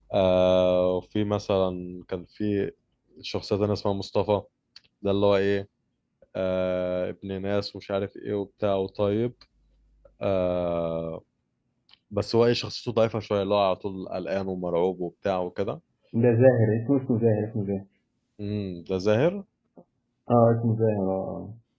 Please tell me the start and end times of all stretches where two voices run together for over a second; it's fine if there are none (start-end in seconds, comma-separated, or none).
none